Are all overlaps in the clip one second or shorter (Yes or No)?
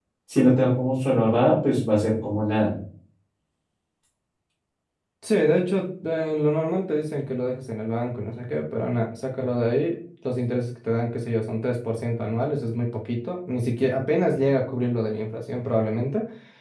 Yes